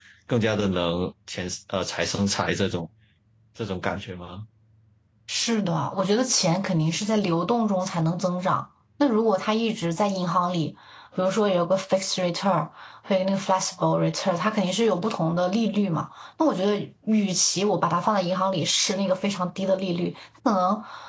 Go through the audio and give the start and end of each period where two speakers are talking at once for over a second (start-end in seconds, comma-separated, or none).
none